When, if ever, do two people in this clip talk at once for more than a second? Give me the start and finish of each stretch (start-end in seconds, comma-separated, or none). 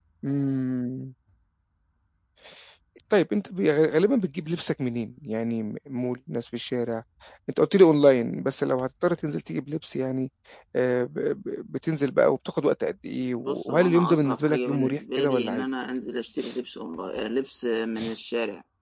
13.4-15.6